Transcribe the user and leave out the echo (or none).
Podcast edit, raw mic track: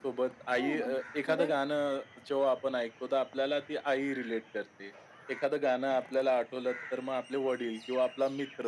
हो, म्हणजे पुढे